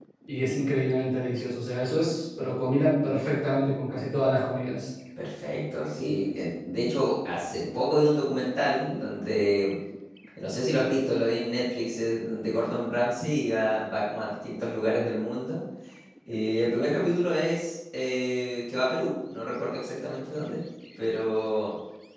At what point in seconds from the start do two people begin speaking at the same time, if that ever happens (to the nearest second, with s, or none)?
none